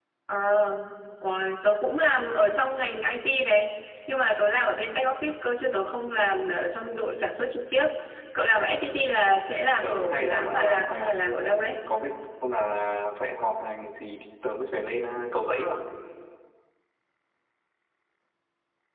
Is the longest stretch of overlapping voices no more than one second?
No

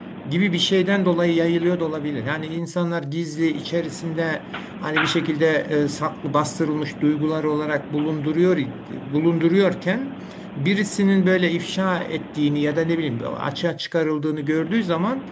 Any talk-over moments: No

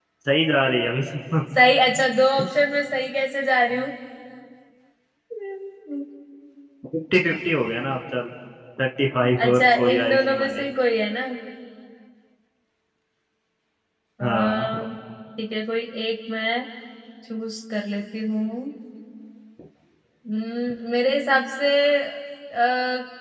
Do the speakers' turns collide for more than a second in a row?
Yes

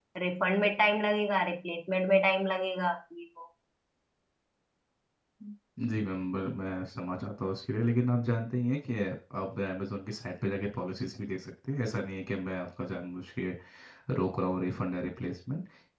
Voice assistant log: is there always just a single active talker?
Yes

